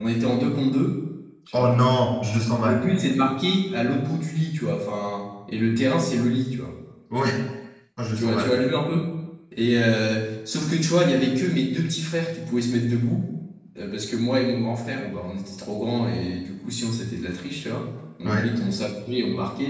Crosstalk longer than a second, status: none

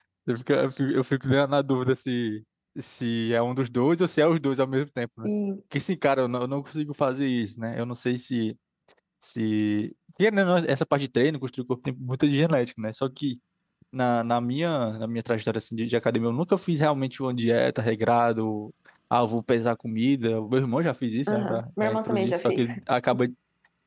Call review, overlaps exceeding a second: present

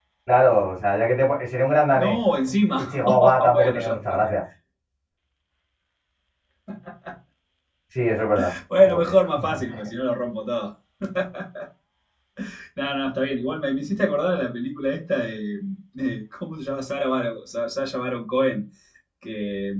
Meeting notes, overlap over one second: present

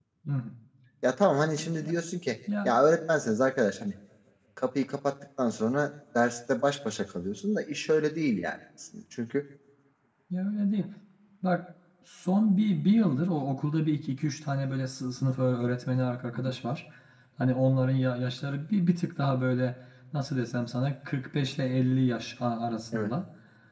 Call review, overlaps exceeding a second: none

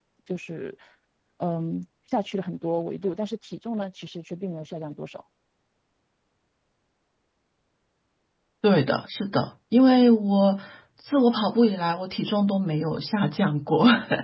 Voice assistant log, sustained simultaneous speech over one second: none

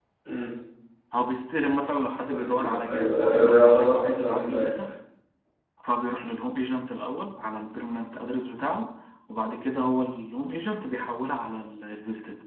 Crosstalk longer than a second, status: present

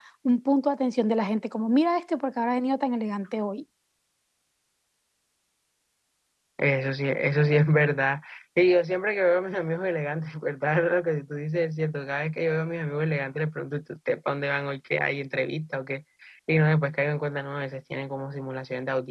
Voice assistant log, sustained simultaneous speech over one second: none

